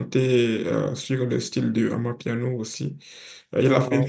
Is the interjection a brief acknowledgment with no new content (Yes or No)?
Yes